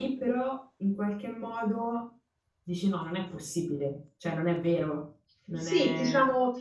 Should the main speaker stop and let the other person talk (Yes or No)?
Yes